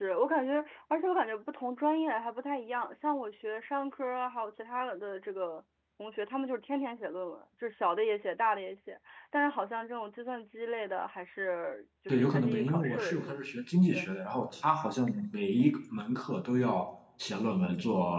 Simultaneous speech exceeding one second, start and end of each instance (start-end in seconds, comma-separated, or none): 12.1-13.4